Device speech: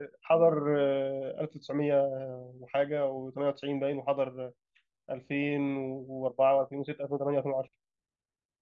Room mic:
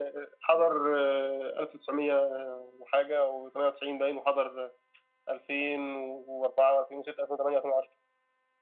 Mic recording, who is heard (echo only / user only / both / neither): echo only